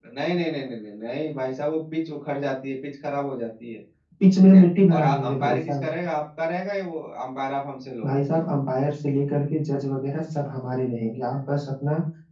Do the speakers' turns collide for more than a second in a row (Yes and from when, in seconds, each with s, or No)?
Yes, from 4.4 s